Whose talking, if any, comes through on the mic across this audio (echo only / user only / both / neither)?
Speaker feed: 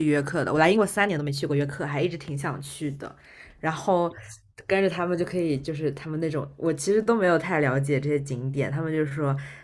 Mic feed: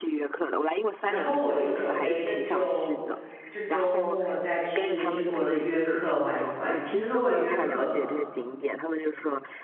both